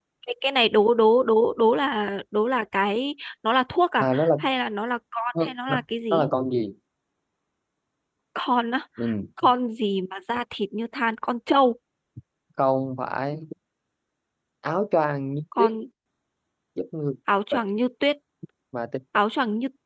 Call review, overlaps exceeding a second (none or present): none